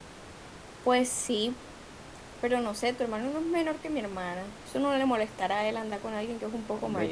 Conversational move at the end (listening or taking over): taking over